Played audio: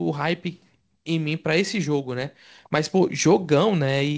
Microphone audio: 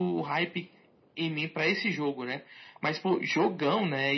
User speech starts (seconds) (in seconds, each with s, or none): none